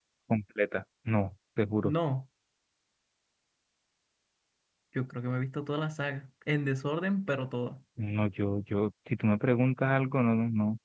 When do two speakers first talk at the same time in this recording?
none

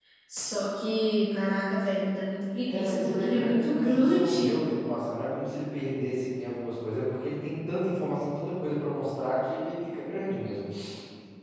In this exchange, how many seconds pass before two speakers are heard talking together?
2.6 s

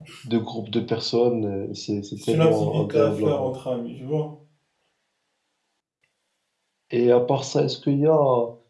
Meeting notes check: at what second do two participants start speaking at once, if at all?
2.2 s

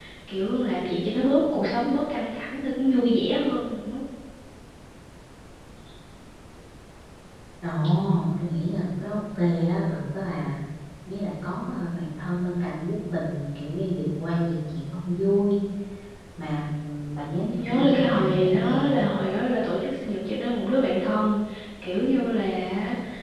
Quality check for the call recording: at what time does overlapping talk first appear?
17.5 s

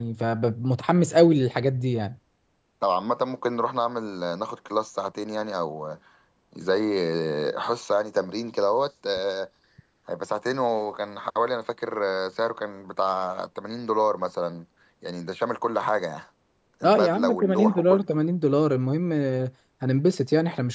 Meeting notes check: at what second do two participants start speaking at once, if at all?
16.8 s

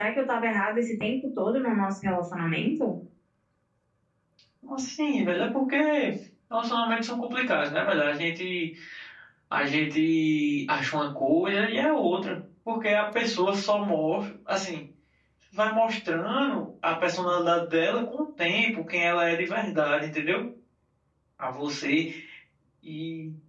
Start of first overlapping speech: none

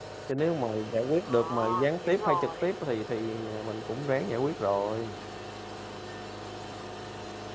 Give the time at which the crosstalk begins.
1.2 s

